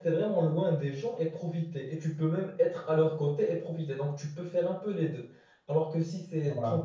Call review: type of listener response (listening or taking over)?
listening